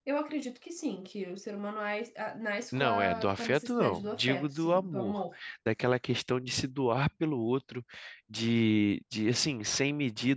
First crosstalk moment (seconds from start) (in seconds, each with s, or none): 2.7 s